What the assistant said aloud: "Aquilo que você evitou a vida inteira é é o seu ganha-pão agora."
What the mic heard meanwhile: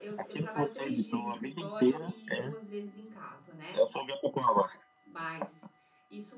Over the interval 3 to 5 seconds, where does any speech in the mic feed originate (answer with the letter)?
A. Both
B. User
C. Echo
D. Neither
A